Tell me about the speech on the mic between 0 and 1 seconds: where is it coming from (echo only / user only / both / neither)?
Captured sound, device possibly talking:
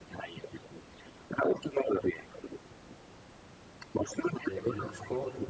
echo only